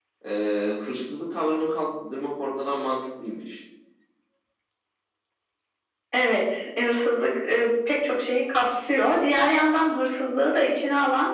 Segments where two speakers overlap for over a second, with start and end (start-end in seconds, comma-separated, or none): none